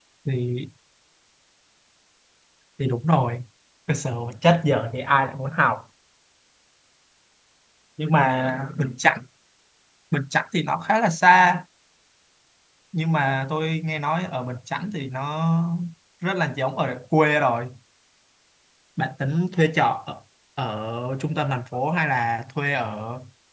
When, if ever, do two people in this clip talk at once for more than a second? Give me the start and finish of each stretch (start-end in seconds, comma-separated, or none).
none